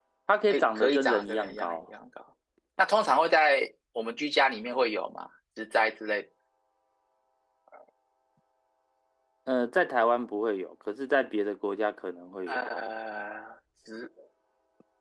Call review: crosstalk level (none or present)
present